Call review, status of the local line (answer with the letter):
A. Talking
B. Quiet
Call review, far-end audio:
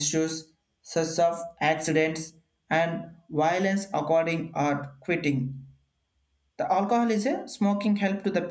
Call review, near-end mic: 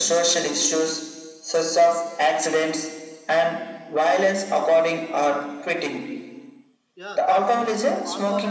A